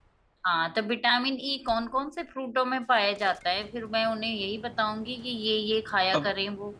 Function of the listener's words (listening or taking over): taking over